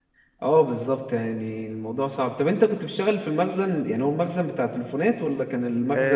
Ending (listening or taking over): taking over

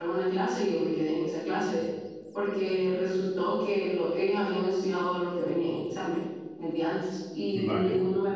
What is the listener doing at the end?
listening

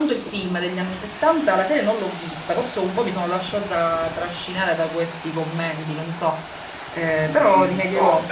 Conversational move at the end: taking over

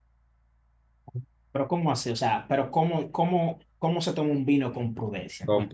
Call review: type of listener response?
taking over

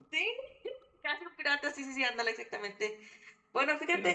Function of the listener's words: listening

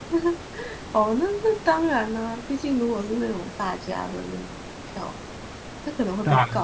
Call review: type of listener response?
listening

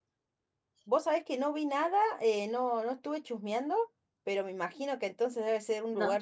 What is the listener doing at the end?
listening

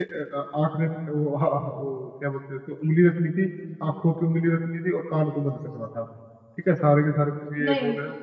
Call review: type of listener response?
listening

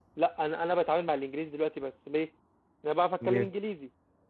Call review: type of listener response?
listening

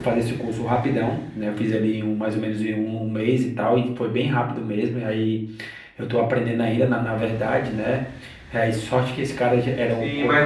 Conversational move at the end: taking over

